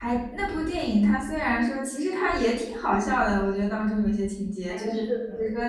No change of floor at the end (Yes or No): Yes